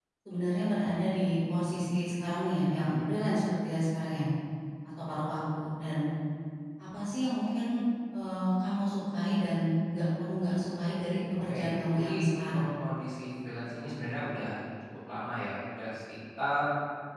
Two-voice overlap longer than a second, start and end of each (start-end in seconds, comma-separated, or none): 11.4-12.6